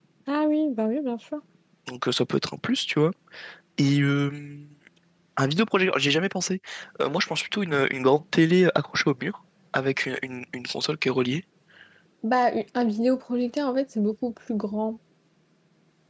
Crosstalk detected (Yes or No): No